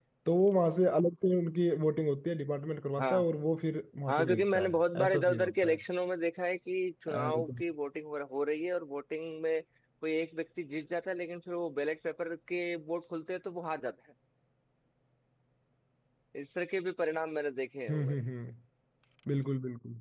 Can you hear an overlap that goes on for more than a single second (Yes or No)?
Yes